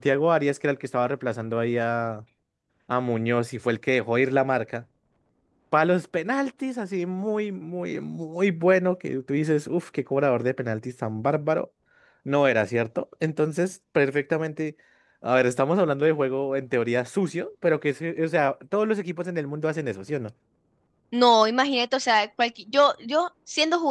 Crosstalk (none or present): none